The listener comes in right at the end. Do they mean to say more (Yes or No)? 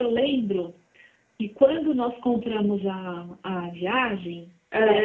No